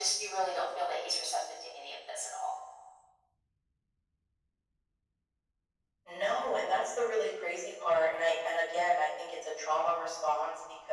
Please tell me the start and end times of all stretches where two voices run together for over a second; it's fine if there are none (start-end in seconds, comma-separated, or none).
none